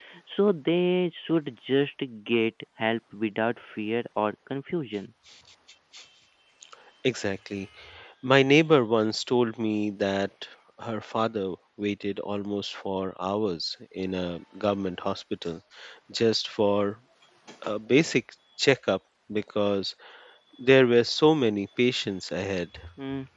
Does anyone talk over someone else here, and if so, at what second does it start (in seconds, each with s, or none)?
none